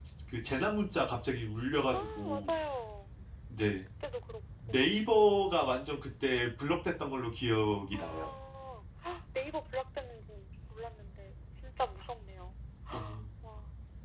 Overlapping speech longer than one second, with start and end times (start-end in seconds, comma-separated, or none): none